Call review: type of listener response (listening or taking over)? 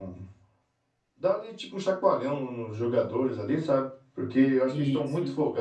listening